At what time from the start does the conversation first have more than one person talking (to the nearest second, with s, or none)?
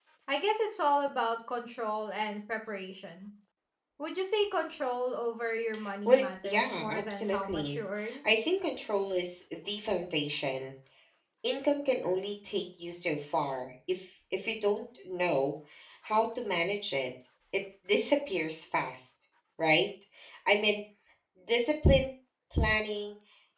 6 s